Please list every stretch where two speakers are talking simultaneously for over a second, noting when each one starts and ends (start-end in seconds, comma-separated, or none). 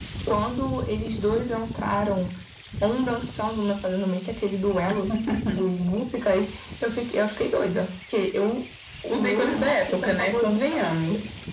9.1-10.6